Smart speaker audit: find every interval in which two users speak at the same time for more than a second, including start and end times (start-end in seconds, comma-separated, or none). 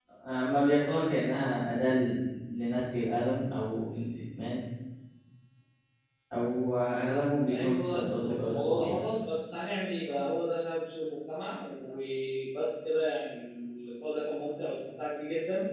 7.5-9.0